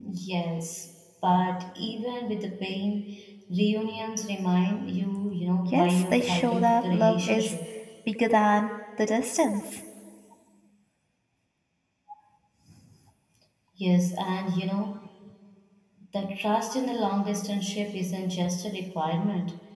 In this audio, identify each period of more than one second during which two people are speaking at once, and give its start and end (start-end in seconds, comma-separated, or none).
5.7-7.6